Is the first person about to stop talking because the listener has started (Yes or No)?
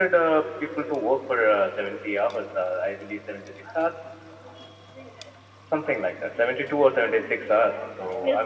Yes